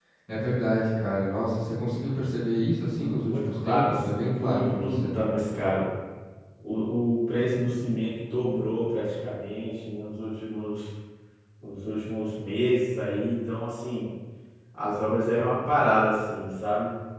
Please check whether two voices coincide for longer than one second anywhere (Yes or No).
Yes